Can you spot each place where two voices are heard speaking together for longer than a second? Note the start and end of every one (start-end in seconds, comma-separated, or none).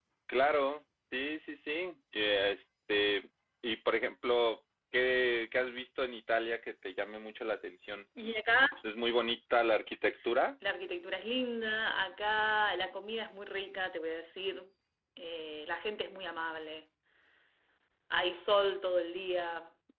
none